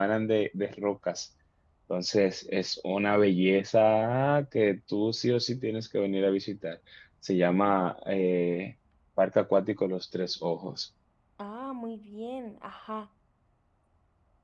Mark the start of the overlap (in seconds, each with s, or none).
none